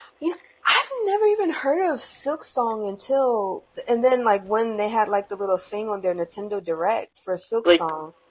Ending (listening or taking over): taking over